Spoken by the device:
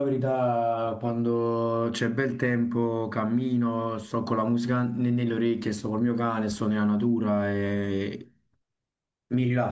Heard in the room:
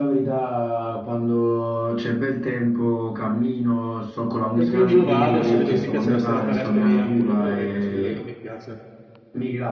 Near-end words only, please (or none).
e quindi io vado, se vedo che mi piace la serata, resto lì anche due o tre orette, se vedo che non mi piace,